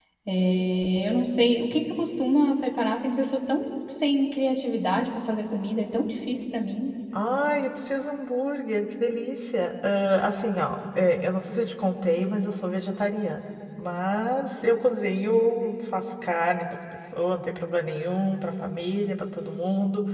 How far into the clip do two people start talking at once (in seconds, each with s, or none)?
none